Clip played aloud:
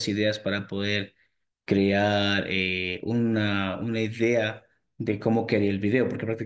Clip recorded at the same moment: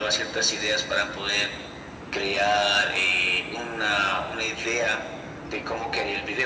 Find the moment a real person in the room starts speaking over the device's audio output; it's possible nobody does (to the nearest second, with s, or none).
none